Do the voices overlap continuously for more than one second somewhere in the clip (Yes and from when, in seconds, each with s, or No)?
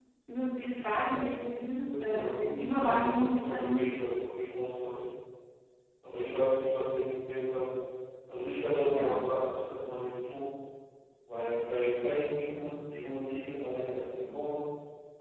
Yes, from 2.1 s